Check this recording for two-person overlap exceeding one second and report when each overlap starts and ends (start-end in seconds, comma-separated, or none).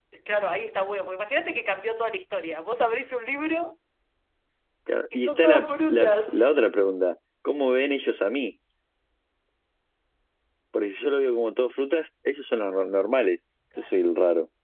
5.1-6.5